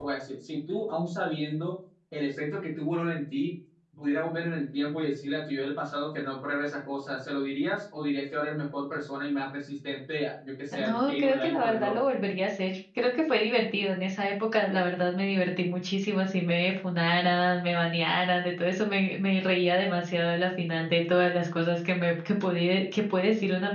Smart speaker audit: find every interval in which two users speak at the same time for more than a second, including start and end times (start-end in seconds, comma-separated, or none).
10.7-12.0